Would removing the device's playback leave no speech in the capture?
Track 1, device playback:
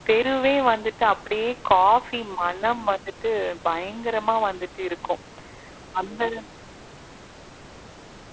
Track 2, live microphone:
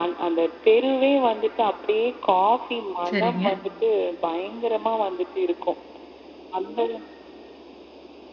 No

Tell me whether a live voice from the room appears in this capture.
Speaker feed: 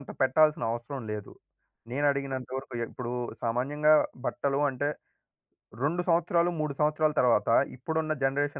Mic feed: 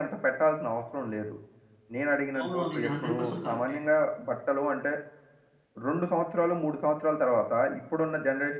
Yes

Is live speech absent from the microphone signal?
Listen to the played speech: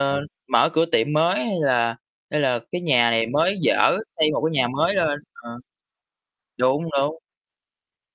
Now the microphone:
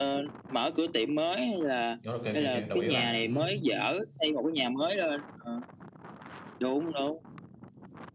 No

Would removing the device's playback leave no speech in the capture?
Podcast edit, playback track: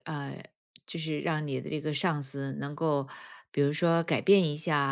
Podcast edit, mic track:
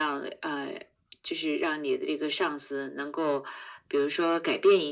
Yes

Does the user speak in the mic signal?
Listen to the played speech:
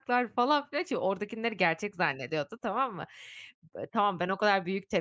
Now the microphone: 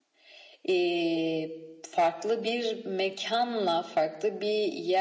Yes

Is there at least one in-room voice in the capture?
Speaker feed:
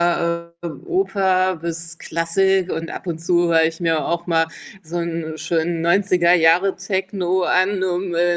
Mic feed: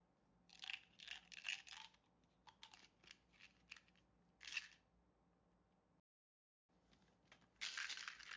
No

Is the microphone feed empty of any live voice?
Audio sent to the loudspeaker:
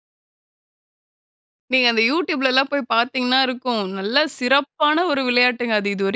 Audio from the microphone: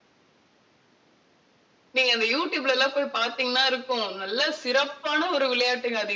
Yes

